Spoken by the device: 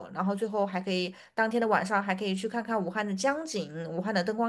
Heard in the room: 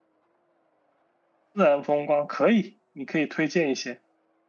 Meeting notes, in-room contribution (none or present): present